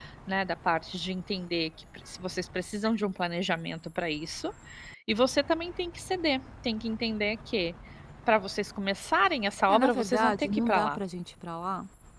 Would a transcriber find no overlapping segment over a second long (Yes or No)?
No